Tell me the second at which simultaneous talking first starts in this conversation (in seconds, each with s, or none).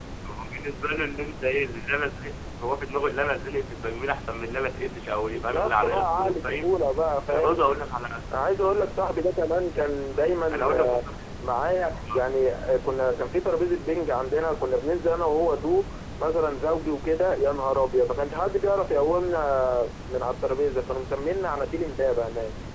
5.3 s